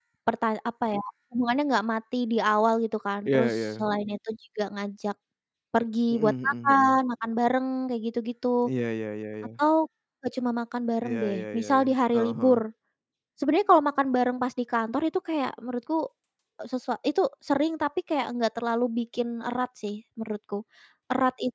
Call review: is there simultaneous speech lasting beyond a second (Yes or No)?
Yes